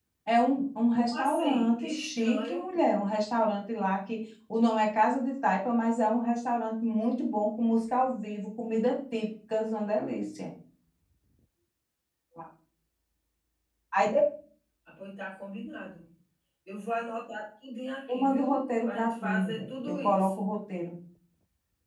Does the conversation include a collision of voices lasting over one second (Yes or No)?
Yes